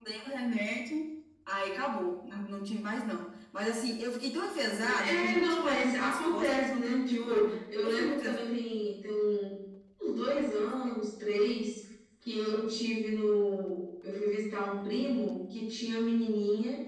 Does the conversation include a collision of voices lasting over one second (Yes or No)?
Yes